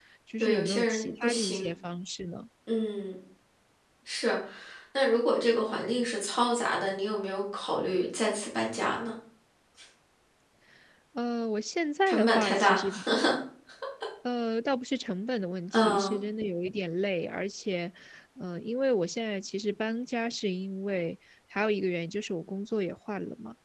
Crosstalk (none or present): present